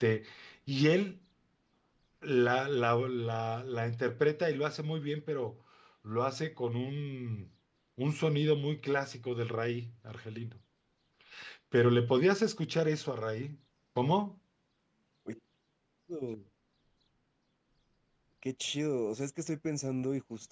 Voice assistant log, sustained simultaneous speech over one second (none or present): none